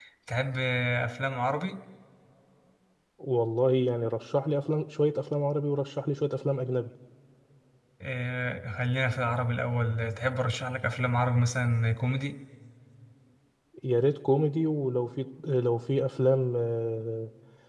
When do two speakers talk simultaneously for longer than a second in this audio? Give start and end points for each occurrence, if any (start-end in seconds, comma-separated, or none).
none